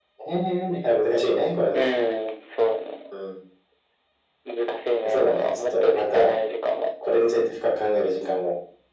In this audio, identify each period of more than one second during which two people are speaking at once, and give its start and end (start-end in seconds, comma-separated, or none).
5.1-6.3